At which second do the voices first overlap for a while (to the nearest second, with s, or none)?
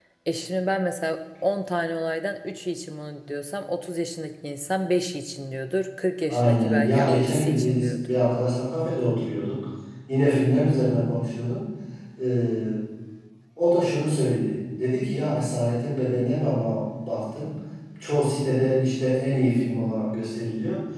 6 s